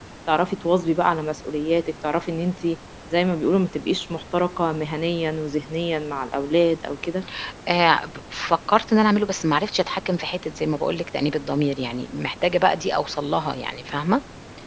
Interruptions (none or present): none